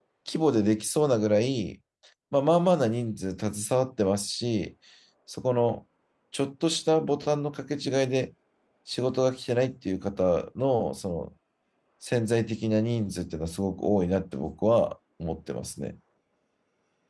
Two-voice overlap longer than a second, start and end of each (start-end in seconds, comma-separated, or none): none